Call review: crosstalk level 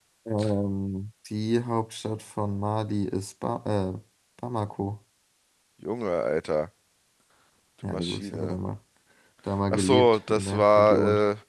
present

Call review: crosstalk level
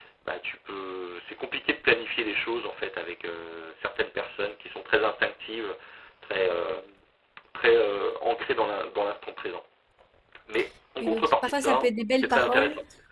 present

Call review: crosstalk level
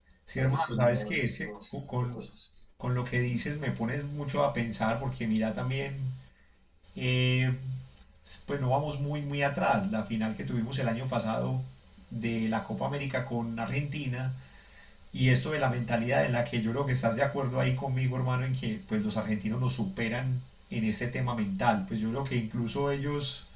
present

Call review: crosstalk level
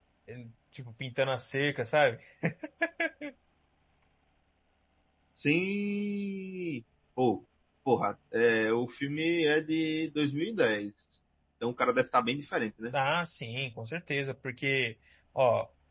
none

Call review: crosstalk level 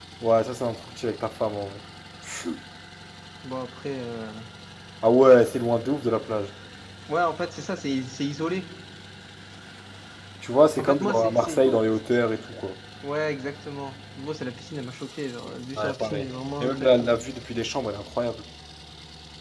present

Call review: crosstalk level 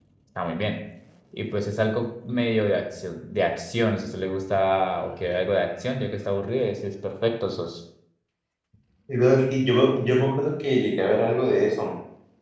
none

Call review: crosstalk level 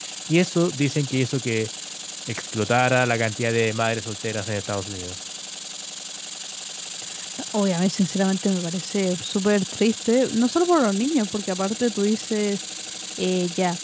none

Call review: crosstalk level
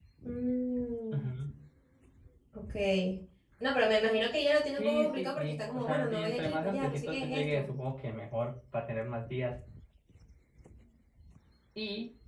present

